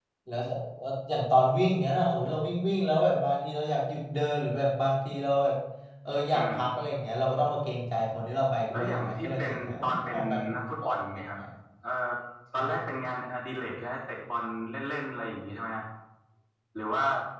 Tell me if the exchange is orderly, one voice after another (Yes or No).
No